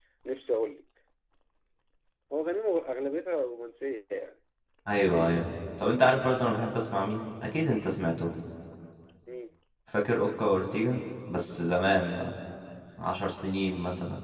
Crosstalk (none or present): none